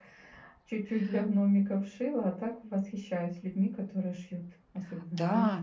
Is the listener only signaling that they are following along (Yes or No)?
No